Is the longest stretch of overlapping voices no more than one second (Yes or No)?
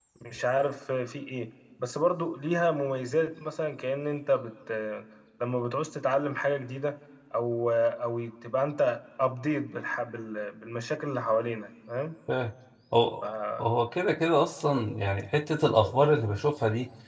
Yes